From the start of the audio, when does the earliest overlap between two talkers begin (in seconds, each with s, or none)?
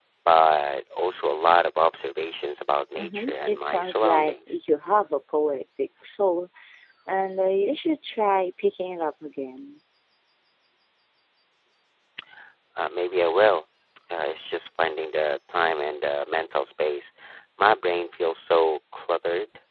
3.0 s